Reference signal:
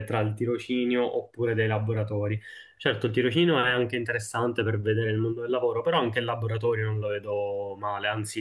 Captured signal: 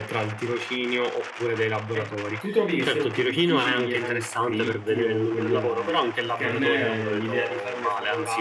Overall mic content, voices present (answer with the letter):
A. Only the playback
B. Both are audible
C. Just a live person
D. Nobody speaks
B